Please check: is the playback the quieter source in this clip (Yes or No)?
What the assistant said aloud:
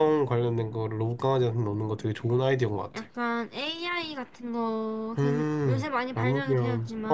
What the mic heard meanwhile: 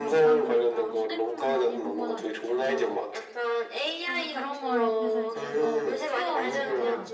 No